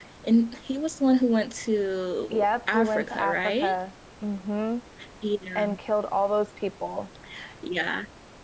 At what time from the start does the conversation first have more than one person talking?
2.3 s

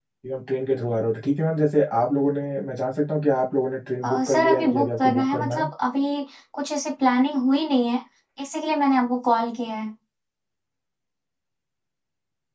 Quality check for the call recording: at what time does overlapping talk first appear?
4.0 s

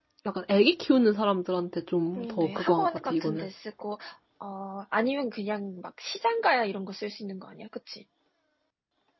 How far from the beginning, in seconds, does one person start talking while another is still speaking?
2.2 s

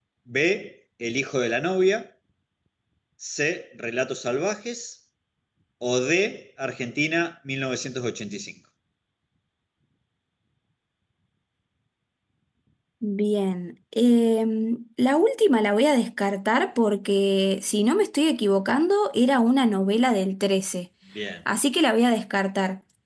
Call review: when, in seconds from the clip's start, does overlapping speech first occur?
none

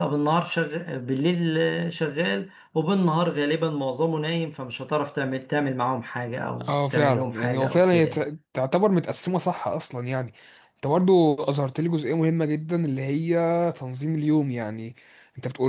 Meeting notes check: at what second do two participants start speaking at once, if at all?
6.5 s

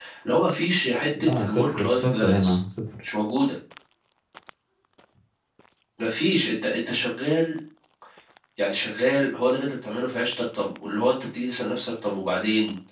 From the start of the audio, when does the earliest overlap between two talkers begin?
1.2 s

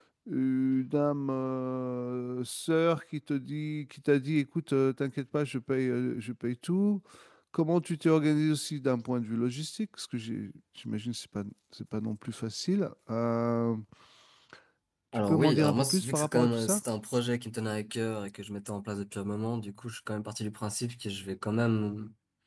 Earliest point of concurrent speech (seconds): 15.1 s

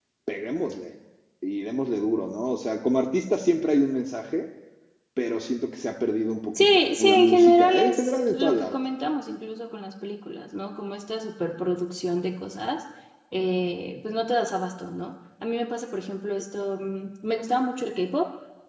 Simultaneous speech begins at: 6.5 s

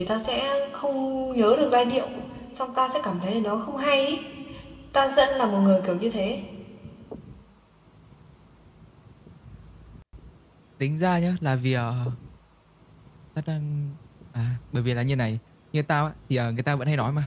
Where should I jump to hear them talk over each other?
none

